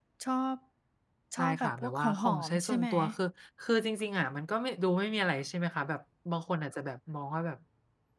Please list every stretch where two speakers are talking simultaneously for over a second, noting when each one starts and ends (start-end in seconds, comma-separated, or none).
1.4-2.9